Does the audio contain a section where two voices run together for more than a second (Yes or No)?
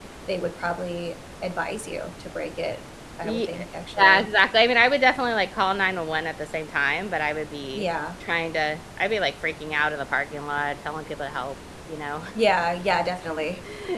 No